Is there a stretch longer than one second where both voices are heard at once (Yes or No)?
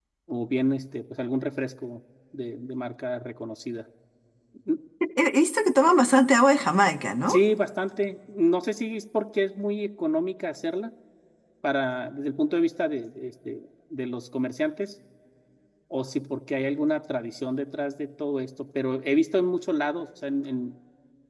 No